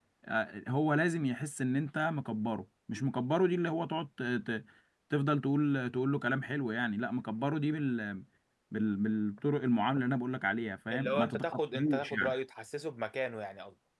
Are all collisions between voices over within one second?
No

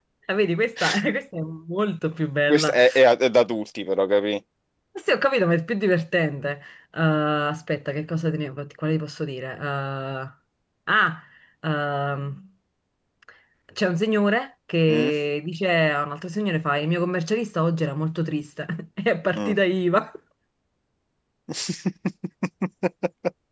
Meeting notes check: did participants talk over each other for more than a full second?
No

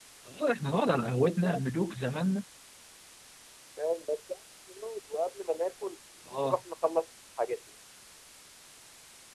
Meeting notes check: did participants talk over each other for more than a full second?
No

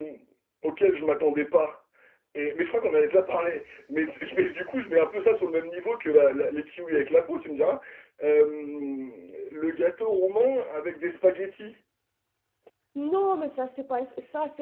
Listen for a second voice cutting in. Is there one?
No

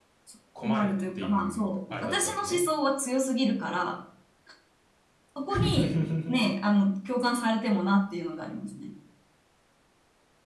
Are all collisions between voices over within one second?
No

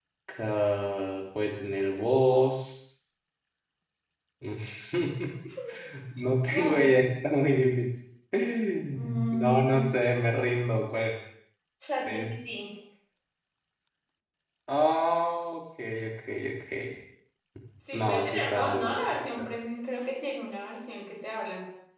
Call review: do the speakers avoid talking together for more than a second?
No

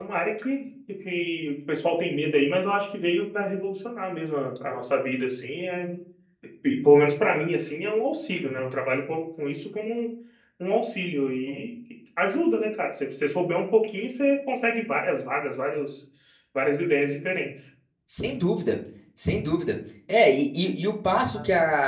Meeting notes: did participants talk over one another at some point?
No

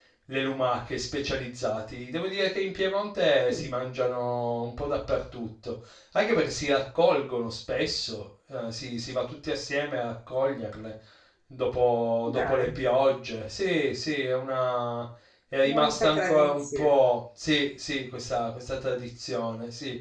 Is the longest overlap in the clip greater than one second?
Yes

